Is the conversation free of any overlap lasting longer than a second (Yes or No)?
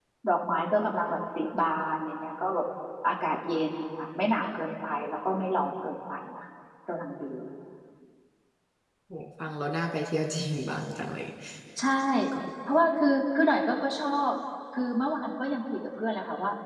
Yes